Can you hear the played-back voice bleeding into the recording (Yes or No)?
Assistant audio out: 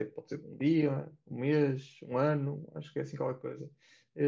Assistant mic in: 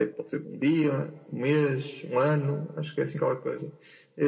Yes